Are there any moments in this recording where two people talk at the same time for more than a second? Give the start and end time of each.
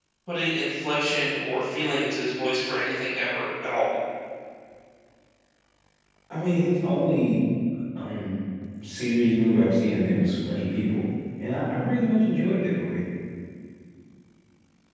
none

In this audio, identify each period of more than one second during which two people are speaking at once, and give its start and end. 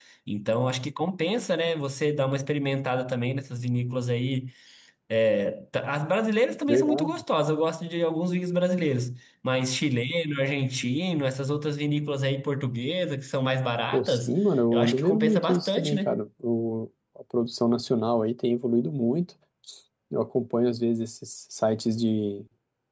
14.7-16.2

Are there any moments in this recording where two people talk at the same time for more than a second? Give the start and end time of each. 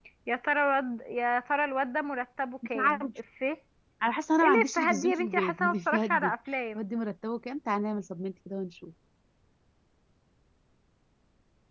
4.4-6.3

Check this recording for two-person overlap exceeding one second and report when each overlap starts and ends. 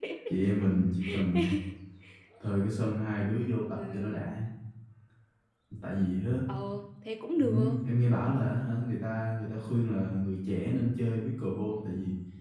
none

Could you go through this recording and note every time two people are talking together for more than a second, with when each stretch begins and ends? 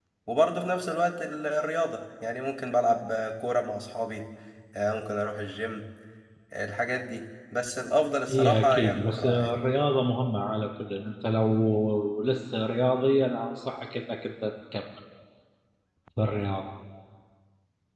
8.3-9.5

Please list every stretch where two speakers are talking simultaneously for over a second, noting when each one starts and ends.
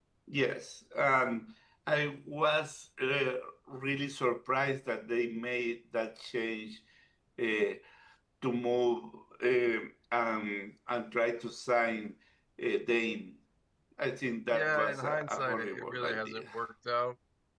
14.5-16.4

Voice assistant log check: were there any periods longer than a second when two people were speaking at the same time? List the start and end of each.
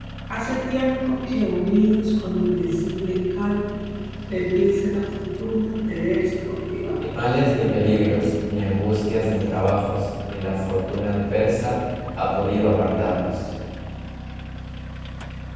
none

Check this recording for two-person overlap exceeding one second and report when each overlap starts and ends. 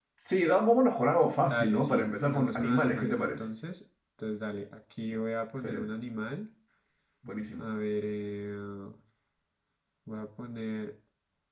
1.5-3.4

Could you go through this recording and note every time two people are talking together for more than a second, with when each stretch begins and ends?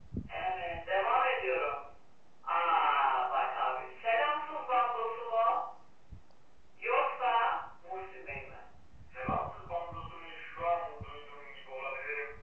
none

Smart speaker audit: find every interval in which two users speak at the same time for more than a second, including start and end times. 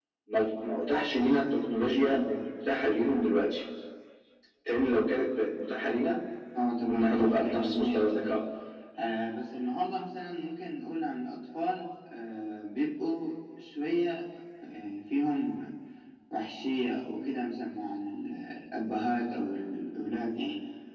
6.9-8.4

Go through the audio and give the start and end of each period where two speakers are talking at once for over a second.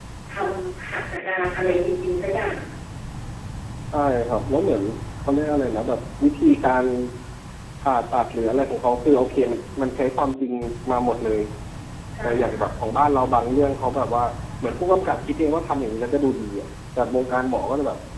none

